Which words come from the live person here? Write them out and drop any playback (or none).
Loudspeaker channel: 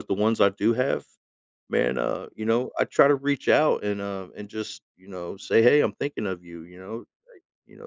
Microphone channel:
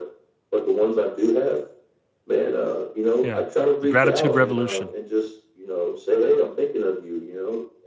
Yeah. The gratitude revolution.